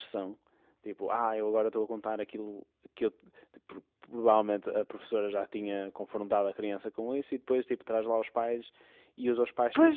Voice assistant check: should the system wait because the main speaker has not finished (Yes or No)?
Yes